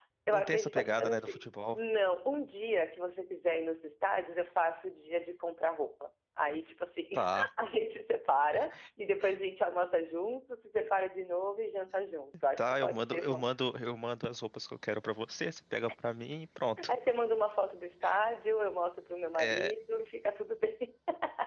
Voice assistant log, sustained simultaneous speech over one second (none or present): present